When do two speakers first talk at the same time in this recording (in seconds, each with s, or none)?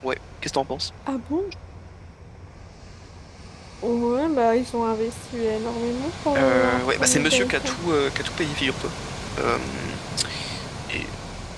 6.4 s